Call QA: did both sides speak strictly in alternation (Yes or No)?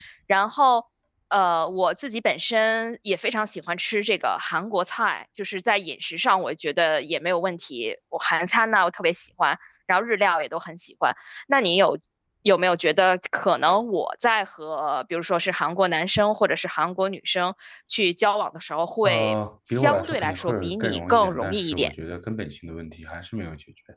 No